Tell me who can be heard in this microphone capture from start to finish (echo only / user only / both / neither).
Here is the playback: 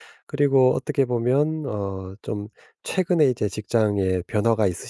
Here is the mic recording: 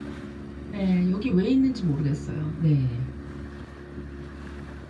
user only